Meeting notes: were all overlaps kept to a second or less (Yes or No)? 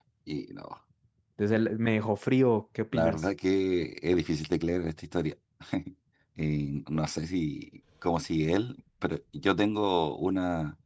Yes